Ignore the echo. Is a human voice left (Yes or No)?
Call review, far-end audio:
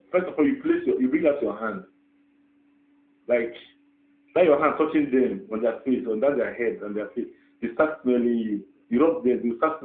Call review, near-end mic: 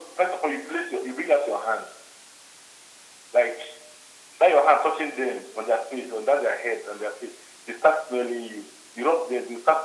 No